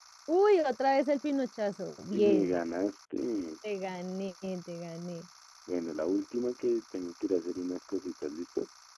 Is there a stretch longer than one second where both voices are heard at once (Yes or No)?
No